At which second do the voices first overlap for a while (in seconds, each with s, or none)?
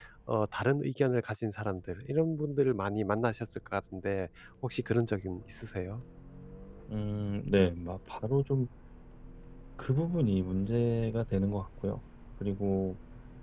none